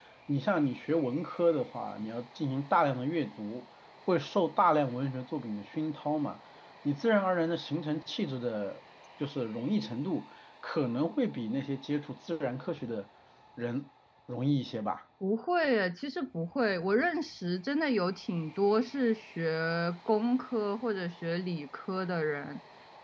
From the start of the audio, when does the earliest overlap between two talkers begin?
none

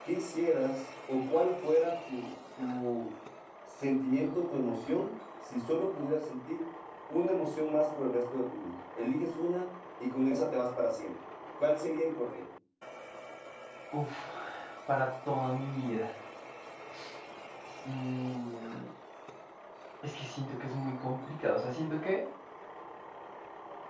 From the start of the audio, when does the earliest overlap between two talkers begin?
none

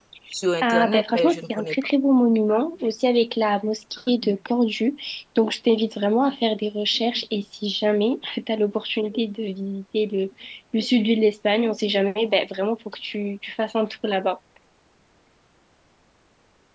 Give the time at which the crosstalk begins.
0.6 s

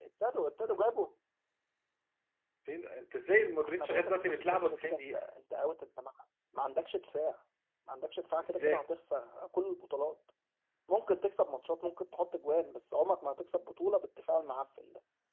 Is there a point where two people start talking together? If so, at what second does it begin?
3.6 s

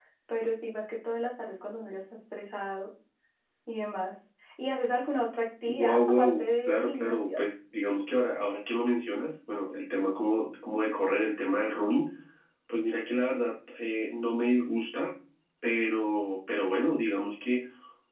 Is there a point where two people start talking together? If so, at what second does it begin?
5.6 s

